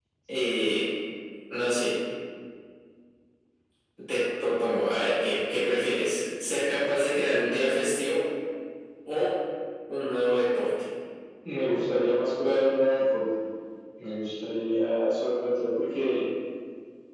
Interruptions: none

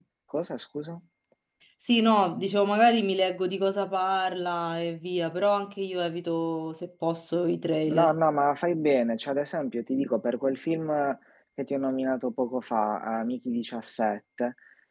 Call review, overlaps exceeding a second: none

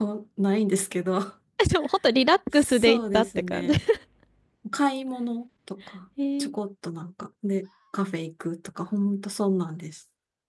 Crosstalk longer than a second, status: present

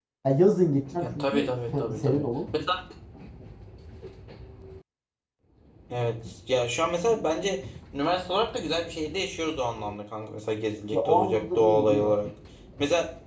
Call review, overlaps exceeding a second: present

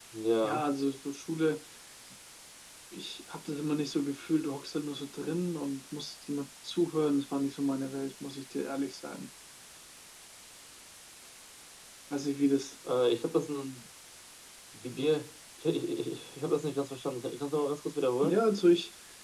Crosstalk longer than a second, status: none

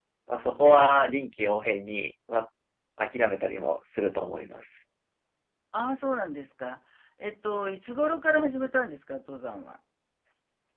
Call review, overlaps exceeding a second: none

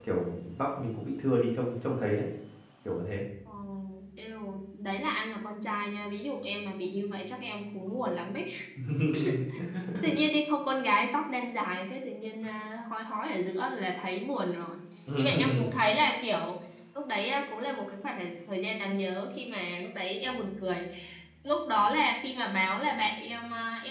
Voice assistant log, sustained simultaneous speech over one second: none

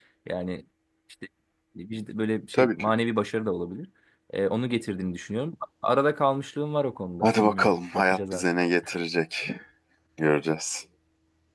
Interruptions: present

